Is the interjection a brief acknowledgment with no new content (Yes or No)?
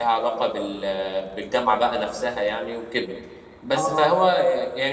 Yes